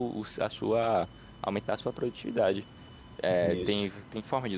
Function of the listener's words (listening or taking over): listening